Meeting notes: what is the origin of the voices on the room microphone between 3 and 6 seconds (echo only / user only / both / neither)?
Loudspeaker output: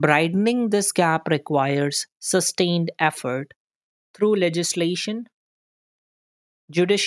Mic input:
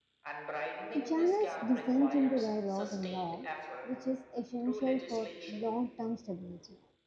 both